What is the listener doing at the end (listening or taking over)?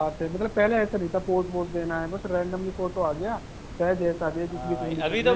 taking over